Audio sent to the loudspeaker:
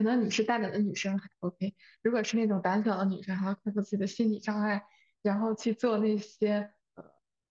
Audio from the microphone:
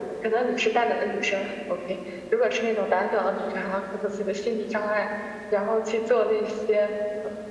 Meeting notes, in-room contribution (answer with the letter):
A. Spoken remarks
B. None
B